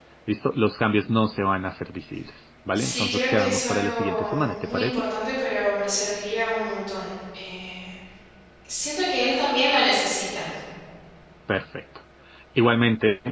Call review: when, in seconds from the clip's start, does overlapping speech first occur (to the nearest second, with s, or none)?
3 s